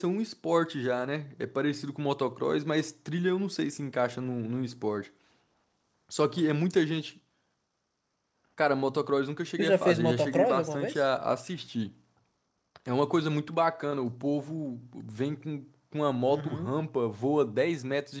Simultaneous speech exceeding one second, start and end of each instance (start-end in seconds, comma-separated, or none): 9.6-11.0